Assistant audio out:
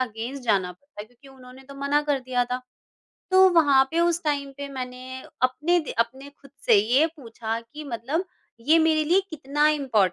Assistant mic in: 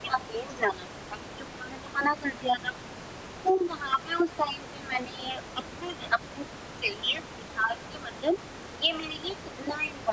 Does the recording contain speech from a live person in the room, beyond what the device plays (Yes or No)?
No